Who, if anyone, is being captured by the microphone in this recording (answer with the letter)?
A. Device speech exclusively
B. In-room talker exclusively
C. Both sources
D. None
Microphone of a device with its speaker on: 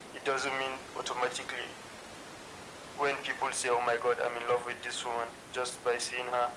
A